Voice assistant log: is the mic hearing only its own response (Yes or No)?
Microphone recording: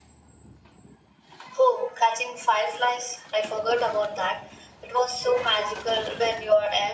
Yes